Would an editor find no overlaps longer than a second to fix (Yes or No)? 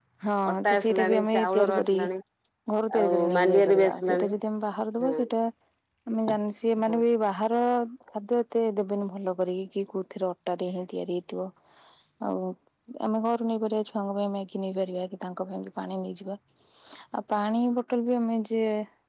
No